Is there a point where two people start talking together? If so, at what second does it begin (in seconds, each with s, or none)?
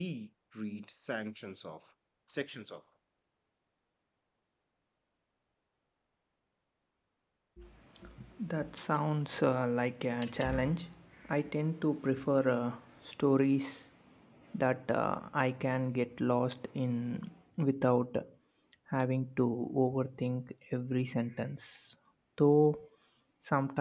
none